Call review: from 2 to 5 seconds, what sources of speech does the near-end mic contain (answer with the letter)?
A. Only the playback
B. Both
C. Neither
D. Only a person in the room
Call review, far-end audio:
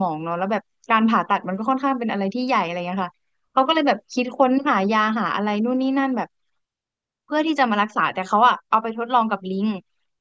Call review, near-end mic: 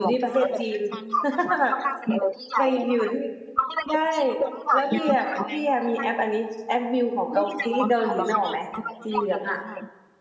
B